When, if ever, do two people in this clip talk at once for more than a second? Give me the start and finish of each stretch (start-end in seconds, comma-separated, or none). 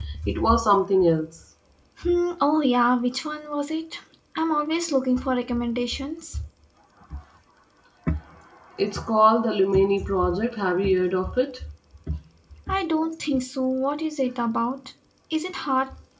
none